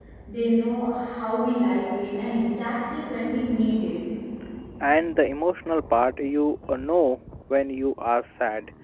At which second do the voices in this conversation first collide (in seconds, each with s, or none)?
none